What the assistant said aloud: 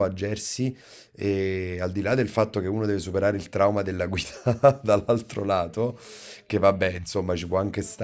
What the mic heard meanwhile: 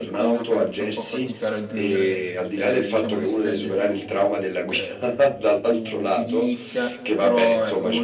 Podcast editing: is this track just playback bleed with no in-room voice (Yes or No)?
No